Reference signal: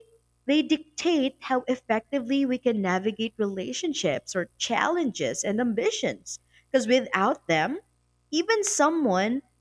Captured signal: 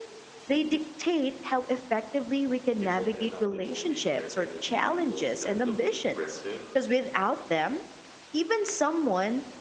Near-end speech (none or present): present